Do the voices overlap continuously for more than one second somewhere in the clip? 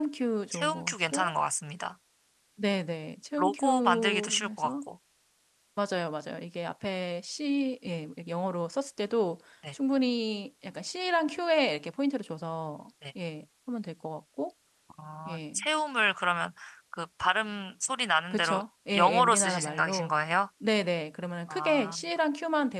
Yes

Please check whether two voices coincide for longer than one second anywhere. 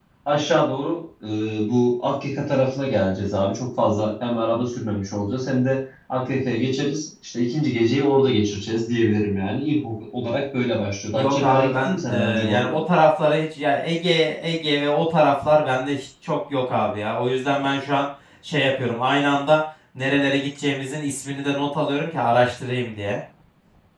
Yes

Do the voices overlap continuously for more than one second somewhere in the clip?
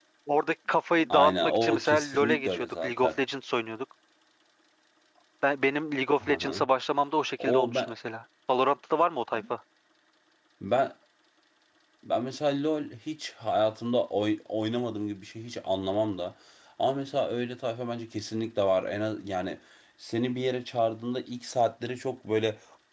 Yes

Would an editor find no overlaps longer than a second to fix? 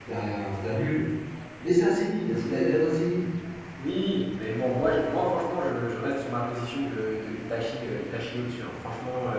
Yes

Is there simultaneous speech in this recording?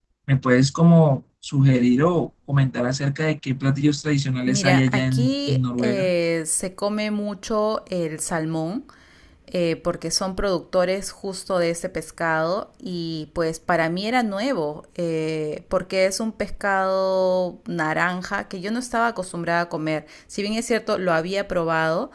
Yes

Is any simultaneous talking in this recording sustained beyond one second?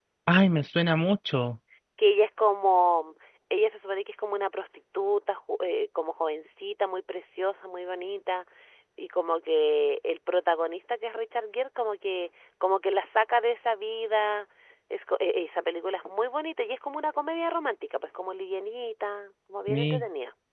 No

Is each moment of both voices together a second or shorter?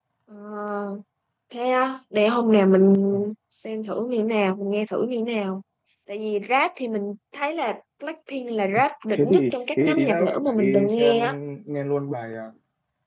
No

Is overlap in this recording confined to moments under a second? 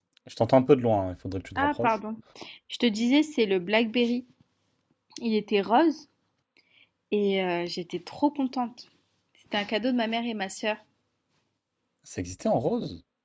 Yes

